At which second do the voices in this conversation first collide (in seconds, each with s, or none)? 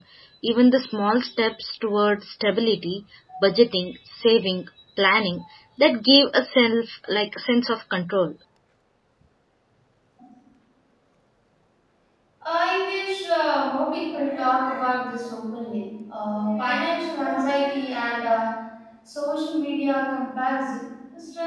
none